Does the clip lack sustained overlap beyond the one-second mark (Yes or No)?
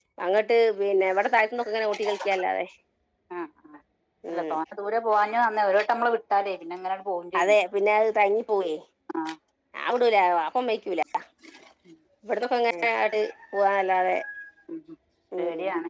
Yes